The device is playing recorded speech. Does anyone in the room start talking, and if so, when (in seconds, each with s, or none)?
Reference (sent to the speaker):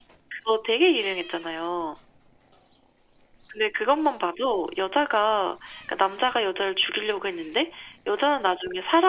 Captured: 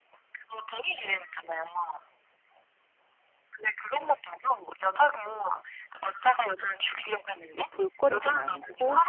7.5 s